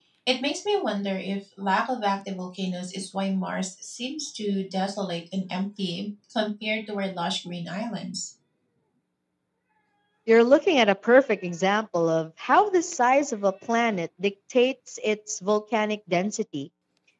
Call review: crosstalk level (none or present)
none